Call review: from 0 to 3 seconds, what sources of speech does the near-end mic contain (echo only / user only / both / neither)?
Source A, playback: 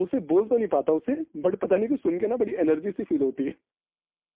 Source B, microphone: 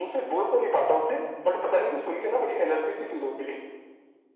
echo only